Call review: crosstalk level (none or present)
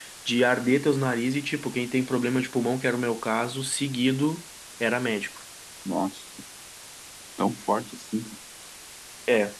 none